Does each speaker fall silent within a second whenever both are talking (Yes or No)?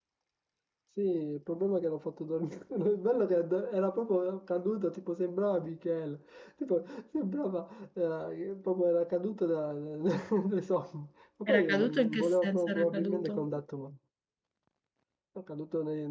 No